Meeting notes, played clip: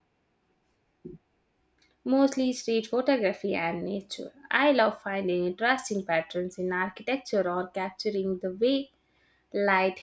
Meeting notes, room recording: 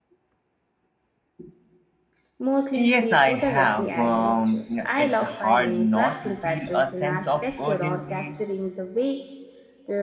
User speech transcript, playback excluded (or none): Yes, I have. Um, it's hard not to feel a sense of urgency.